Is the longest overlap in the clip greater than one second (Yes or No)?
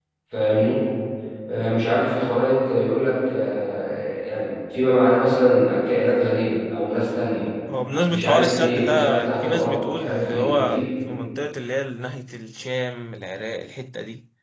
Yes